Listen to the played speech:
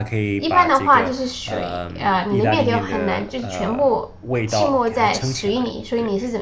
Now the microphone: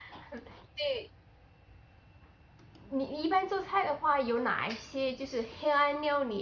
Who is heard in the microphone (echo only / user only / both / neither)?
user only